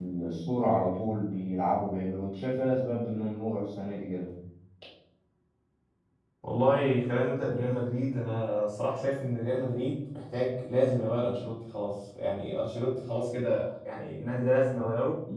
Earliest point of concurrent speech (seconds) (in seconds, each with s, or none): none